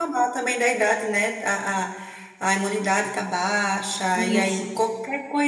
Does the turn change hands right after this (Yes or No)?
No